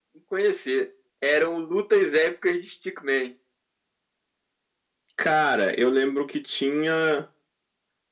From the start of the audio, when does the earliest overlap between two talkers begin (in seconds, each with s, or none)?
none